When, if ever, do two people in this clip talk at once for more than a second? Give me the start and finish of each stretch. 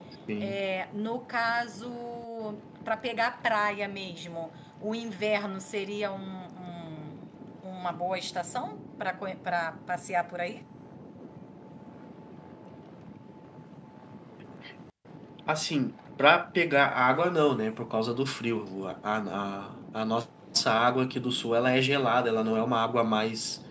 none

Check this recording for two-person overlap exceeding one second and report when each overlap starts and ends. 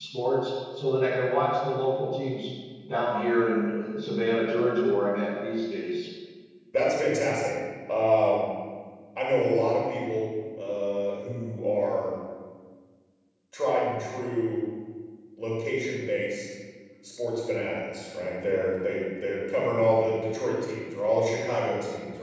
none

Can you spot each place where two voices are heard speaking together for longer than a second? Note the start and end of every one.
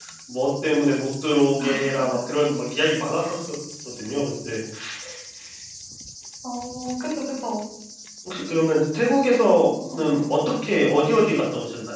none

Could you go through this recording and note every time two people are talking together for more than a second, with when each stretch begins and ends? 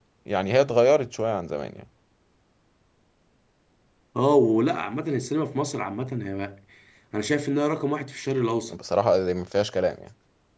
none

